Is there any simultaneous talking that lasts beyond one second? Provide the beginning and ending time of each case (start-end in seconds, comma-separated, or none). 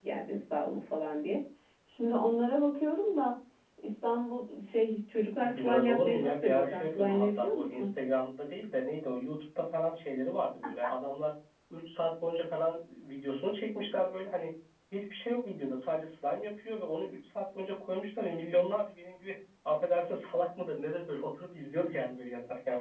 5.4-7.9